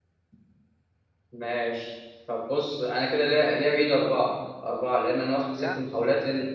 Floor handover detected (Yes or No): No